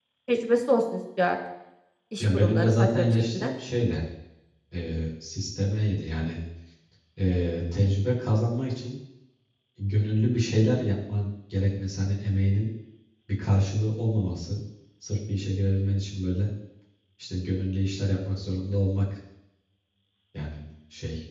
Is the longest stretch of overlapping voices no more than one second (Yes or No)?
No